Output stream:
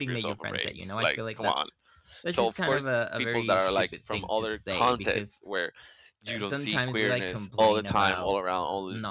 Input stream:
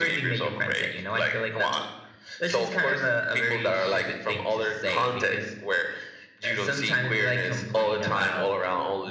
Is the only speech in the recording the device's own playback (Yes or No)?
Yes